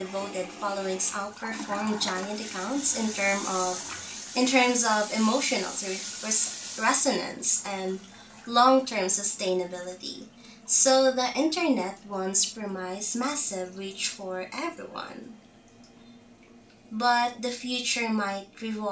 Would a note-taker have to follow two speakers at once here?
No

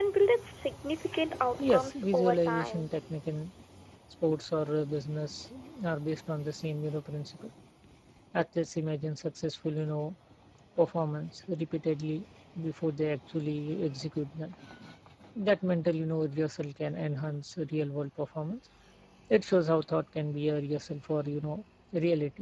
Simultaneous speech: Yes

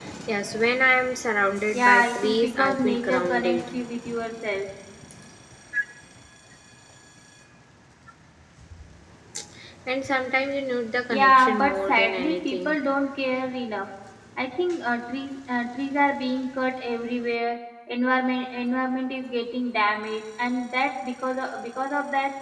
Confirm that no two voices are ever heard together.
No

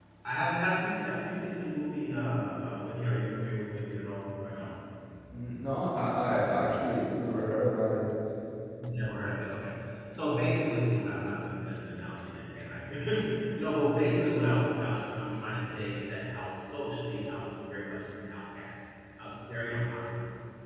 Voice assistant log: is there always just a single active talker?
Yes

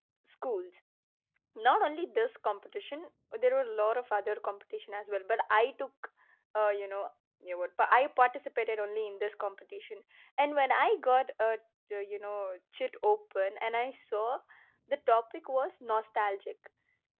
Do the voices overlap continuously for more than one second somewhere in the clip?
No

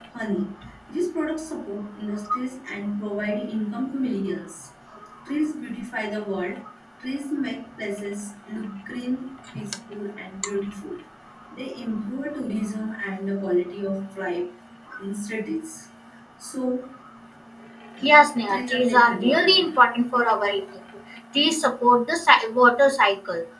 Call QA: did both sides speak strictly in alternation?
No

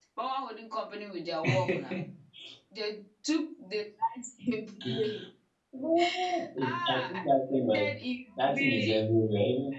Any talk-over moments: Yes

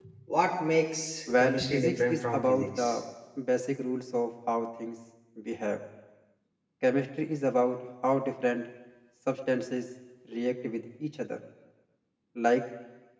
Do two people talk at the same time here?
Yes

